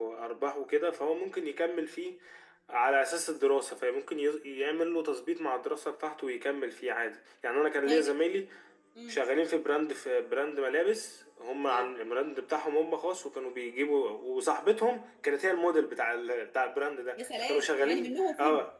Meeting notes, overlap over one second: present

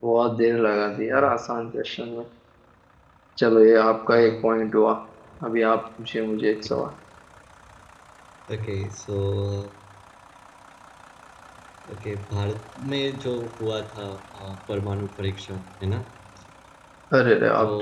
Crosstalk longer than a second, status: none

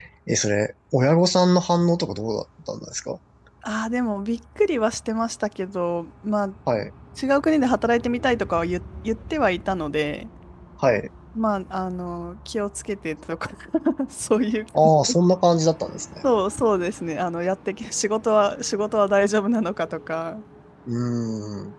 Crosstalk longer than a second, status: none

